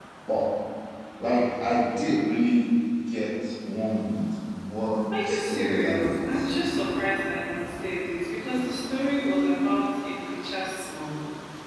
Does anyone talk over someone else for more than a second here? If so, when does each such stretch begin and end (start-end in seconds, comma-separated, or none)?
5.2-6.5